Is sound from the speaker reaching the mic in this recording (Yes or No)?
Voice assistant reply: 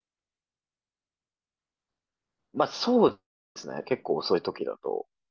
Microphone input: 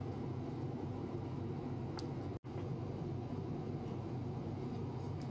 No